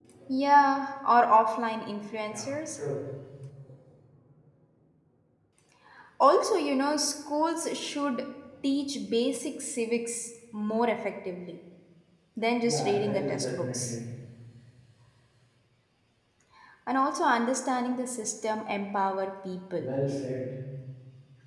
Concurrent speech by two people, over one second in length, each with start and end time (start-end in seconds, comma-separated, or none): 12.6-13.9